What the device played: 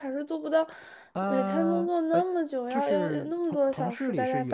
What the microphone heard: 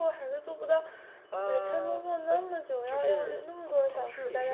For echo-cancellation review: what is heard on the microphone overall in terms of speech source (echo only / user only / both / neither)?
echo only